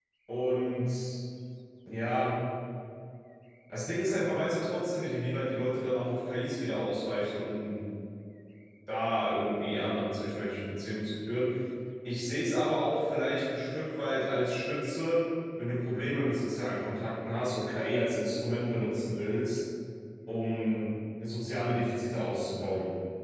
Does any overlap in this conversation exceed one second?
No

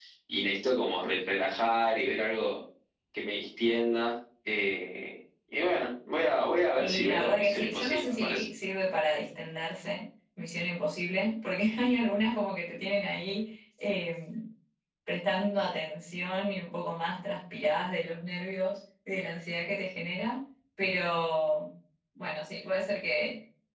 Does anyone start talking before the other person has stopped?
Yes, from 6.8 s

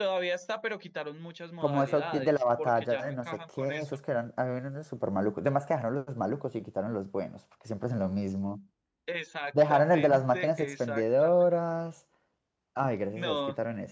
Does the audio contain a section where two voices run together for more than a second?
Yes, from 1.6 s

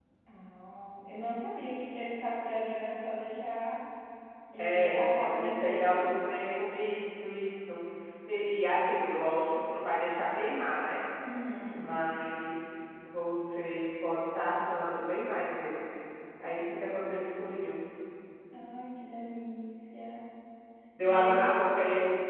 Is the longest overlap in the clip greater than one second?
Yes, from 4.6 s

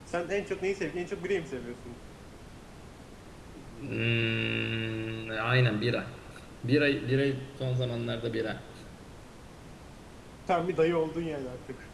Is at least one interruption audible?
No

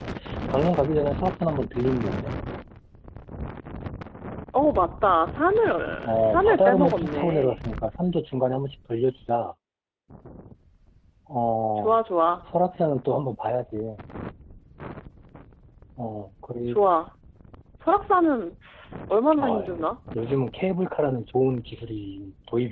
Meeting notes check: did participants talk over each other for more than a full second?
Yes, from 6.0 s

